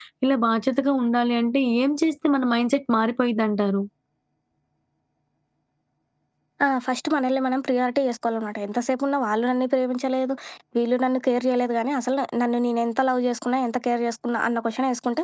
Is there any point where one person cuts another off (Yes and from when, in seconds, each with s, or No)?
No